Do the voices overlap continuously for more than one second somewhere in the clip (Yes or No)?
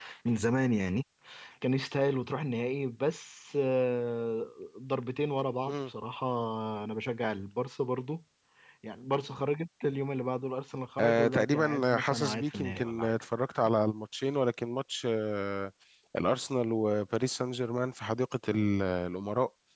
Yes